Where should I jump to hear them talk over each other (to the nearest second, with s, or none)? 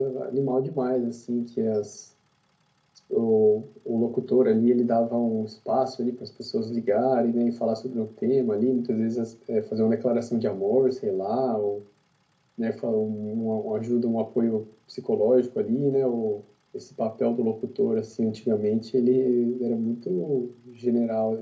none